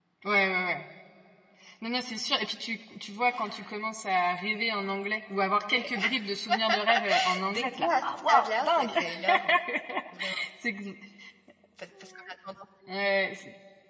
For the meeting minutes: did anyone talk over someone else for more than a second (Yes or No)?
Yes